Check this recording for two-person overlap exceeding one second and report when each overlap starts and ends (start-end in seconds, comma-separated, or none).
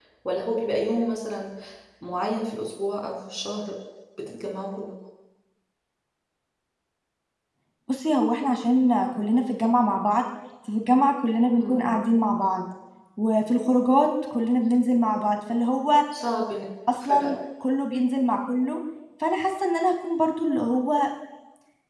none